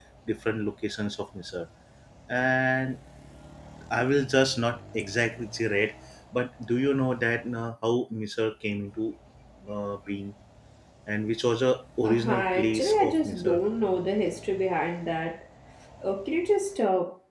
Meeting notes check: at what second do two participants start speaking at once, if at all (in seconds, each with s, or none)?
12.0 s